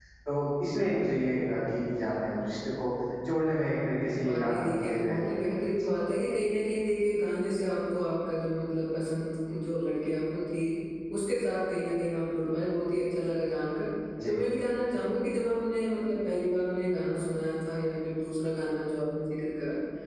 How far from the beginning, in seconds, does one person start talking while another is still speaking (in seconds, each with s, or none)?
4.2 s